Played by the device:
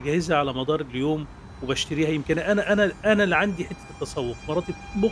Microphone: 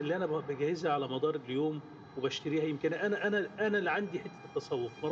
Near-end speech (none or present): none